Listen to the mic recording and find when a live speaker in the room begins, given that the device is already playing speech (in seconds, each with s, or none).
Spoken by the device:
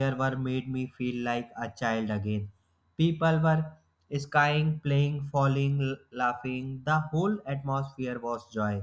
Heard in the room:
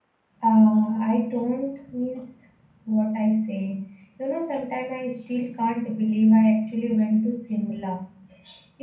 0.4 s